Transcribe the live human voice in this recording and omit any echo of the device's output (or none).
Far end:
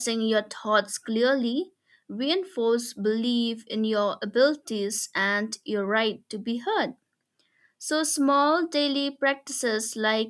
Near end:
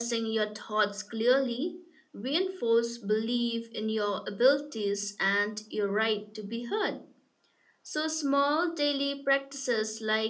none